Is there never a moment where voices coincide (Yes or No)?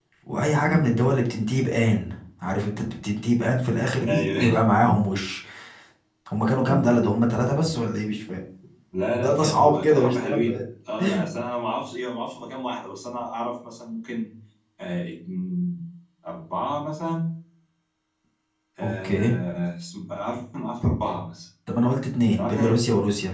No